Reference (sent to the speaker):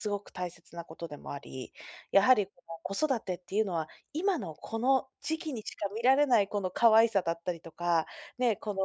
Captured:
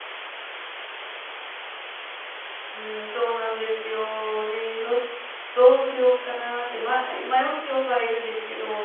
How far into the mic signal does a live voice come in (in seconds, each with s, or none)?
2.7 s